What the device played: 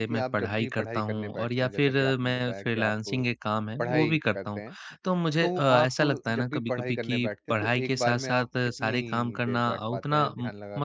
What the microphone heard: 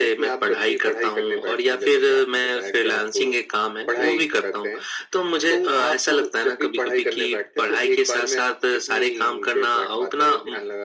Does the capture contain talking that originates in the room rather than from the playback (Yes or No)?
No